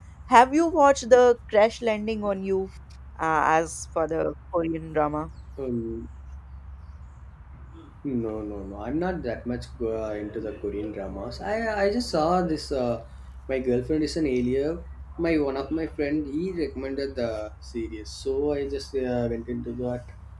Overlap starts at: none

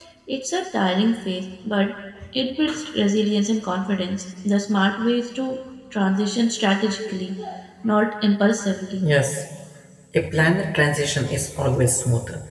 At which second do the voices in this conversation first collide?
none

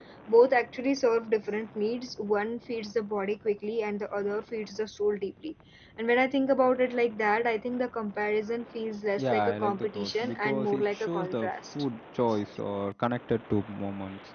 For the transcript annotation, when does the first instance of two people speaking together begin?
9.2 s

